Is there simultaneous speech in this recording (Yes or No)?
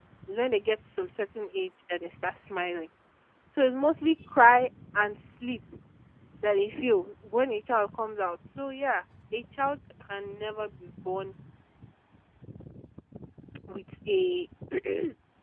No